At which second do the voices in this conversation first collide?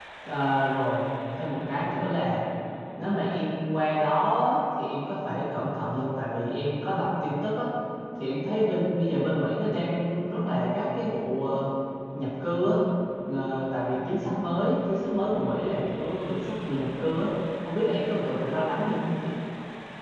none

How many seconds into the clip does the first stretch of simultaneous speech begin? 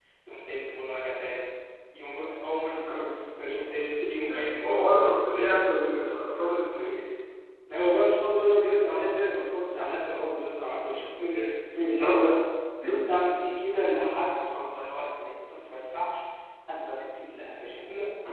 4 s

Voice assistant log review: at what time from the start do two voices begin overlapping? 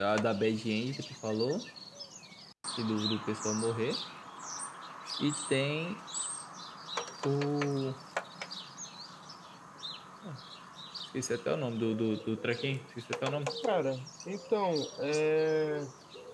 none

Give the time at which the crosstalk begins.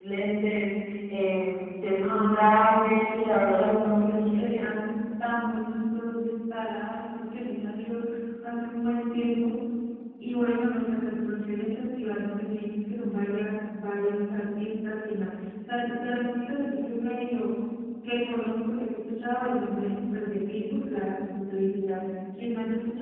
2 s

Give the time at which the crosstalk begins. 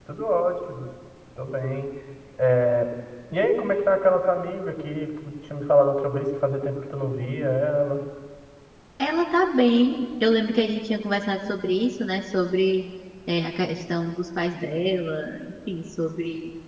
none

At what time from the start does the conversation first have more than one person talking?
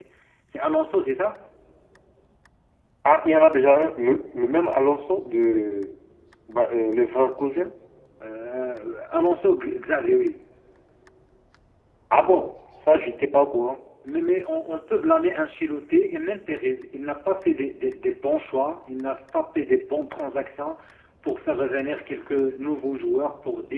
none

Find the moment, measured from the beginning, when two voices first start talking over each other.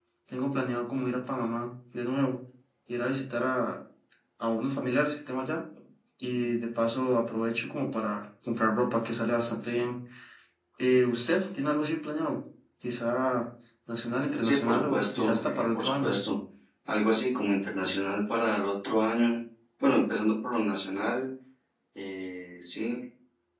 14 s

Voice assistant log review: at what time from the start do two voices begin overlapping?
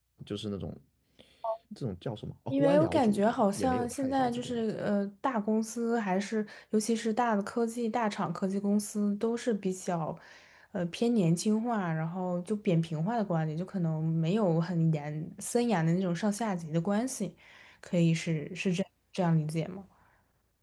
3 s

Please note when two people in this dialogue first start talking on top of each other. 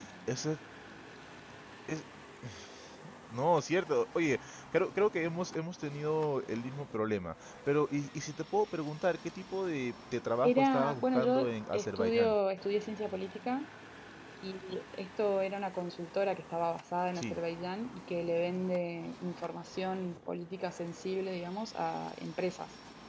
10 s

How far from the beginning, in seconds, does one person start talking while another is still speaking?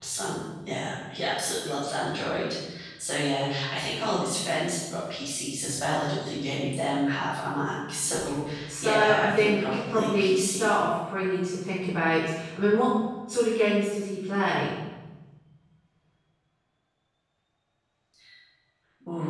9 s

